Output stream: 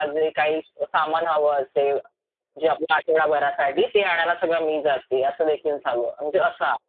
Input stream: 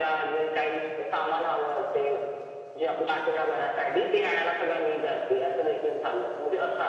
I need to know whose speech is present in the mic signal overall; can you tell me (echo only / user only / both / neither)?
echo only